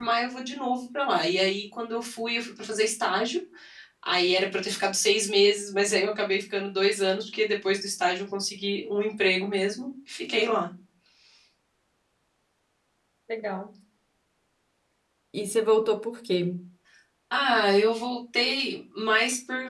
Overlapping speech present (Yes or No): No